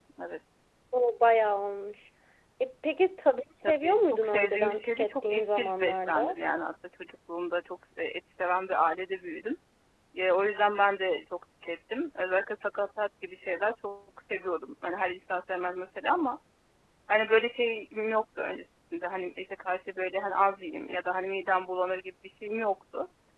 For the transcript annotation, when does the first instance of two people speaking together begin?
3.6 s

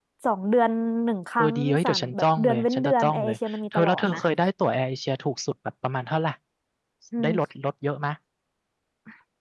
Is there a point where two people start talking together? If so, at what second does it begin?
1.4 s

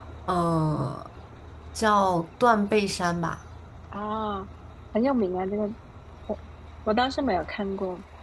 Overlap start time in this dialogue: none

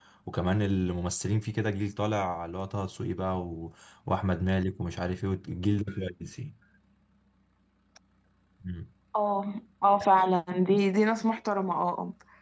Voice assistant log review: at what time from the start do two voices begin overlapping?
none

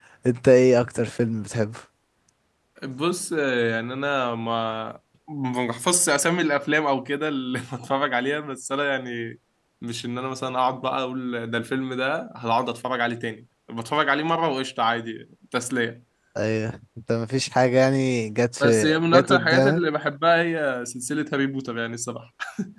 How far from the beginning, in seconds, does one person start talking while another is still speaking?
18.6 s

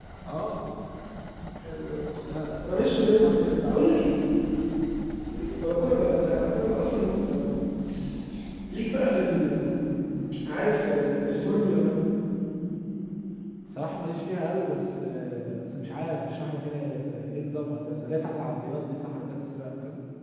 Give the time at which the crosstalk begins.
2.7 s

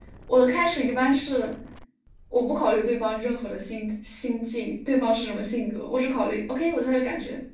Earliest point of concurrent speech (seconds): none

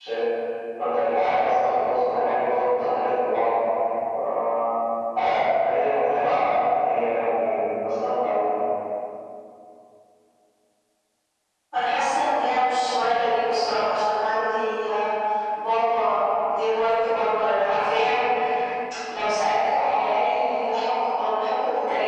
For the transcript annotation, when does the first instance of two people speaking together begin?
none

